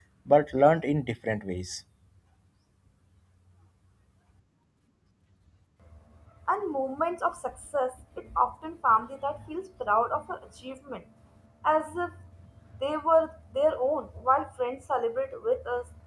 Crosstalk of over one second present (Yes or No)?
No